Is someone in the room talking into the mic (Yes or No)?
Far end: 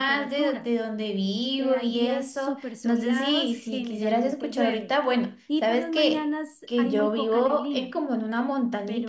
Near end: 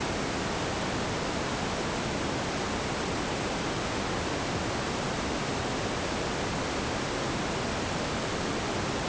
No